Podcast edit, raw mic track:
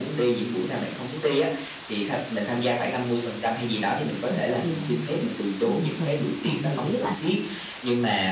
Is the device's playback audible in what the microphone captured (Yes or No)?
Yes